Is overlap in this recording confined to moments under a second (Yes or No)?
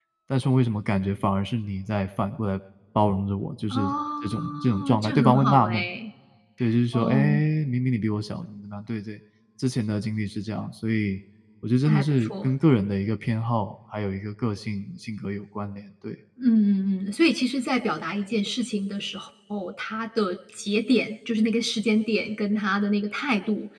No